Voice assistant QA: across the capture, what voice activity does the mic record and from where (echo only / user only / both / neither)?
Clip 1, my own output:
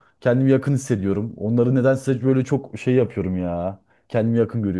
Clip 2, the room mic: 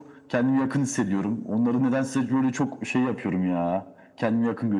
echo only